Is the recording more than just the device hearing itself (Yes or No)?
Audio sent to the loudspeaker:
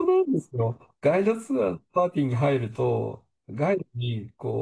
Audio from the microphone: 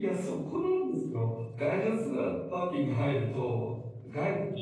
No